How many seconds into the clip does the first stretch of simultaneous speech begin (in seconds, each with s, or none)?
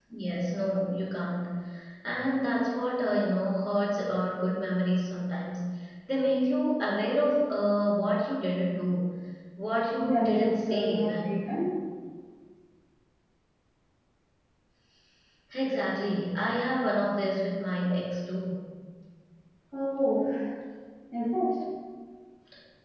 10.0 s